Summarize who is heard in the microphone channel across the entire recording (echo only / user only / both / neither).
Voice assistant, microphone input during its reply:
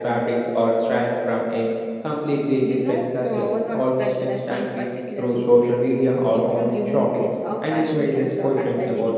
both